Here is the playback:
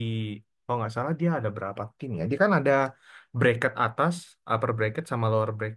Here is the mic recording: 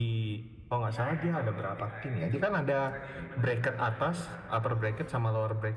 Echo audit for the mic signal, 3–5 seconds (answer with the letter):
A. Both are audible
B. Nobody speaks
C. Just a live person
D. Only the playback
A